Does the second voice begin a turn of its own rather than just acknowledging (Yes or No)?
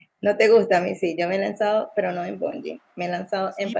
Yes